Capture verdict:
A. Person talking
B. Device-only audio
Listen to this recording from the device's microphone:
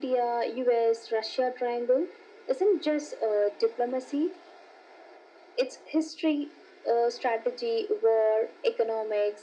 B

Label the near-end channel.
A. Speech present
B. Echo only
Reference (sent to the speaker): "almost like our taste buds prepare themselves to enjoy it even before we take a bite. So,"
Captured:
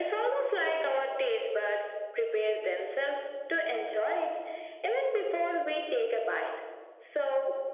B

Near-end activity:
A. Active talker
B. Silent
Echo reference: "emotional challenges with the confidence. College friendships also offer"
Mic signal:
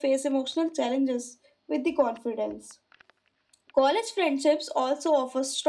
B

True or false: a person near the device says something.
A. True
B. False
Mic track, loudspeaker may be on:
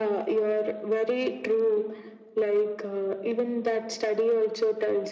B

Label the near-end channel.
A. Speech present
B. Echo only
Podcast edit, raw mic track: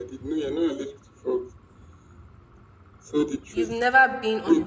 A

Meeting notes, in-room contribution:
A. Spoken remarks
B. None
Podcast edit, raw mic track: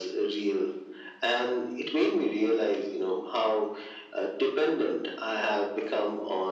B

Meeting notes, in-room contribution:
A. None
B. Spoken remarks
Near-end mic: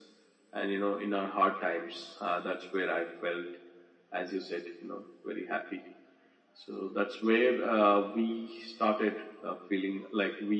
A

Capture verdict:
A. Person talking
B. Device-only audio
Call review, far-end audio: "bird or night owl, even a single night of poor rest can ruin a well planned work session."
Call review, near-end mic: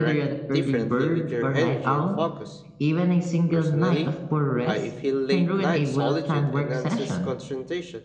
A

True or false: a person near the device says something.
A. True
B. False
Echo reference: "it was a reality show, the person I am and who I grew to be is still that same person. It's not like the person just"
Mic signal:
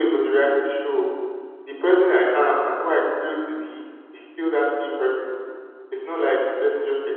B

